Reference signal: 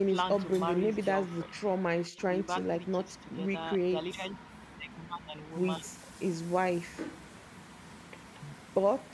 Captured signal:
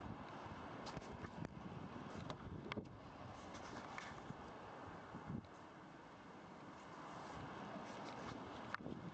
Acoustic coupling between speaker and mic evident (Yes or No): No